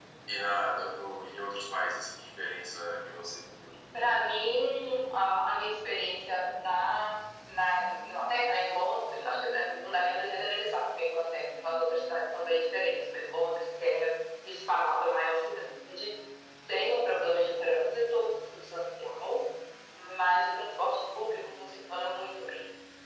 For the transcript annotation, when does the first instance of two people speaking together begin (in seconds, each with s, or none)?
none